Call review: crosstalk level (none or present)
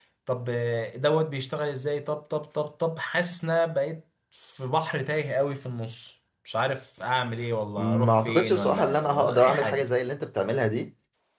present